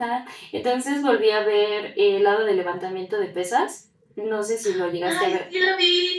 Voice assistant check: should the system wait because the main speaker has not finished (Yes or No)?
No